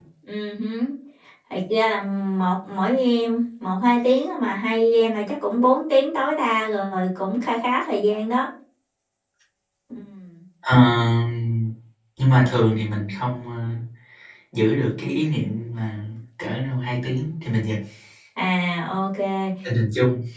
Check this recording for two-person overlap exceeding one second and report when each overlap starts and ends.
none

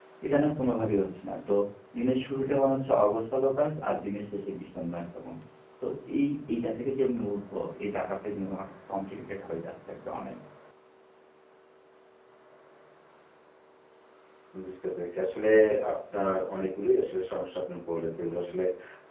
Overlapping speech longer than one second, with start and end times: none

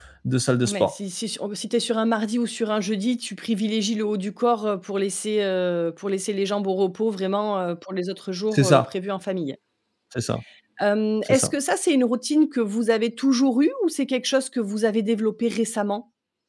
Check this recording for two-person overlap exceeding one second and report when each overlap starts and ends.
none

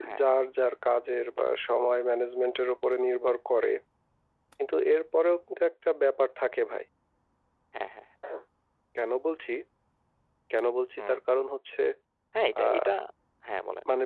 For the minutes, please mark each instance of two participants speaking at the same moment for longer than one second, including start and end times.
none

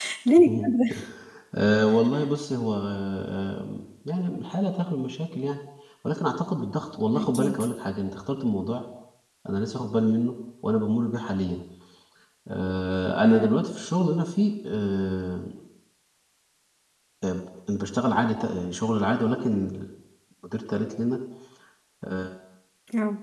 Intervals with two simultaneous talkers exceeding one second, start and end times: none

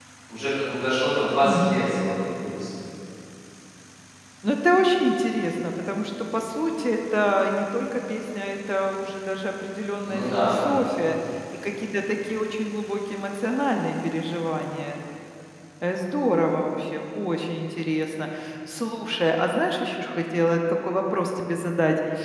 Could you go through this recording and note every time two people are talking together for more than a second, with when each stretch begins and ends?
none

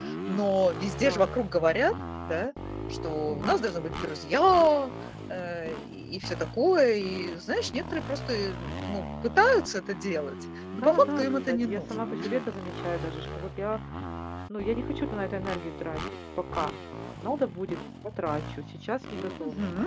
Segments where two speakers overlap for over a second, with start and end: 10.8-12.0

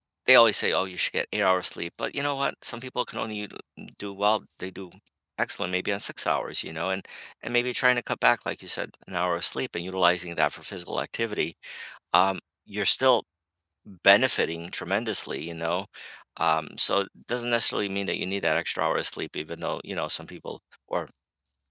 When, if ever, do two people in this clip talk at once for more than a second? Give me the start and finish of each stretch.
none

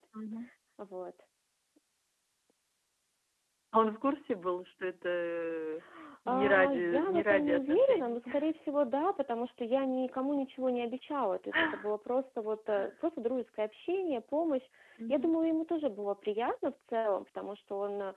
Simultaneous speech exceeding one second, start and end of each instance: 6.3-8.2

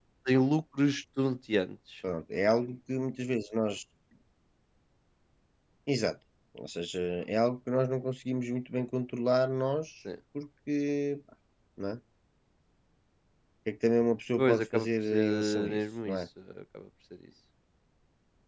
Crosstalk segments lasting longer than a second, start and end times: 14.4-16.2

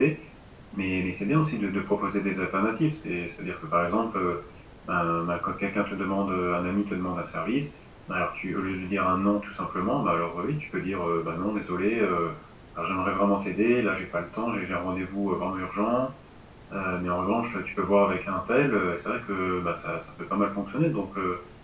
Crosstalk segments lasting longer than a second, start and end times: none

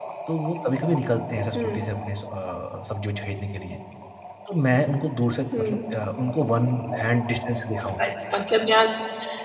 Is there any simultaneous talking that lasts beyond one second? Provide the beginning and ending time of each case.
none

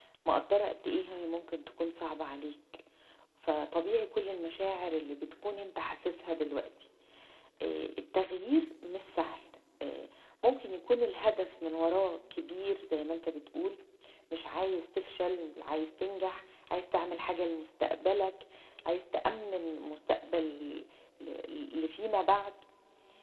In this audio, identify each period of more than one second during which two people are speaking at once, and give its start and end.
none

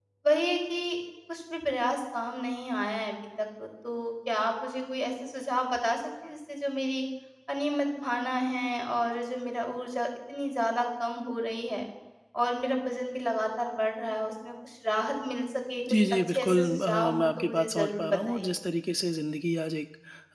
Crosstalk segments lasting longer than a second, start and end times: 16.0-18.6

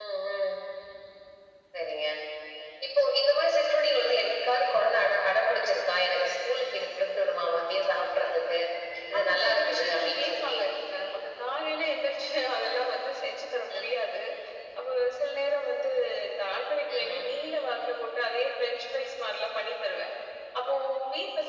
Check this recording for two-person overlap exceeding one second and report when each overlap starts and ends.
9.2-10.5

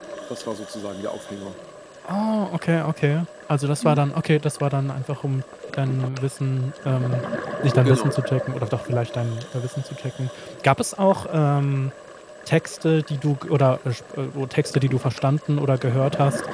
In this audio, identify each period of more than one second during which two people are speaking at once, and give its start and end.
none

